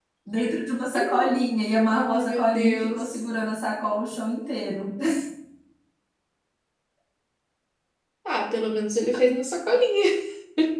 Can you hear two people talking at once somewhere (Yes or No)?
Yes